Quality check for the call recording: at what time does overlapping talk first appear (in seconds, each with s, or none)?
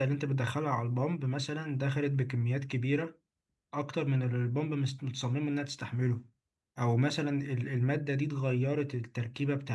none